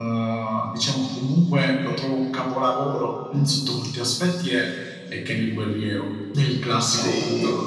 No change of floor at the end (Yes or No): No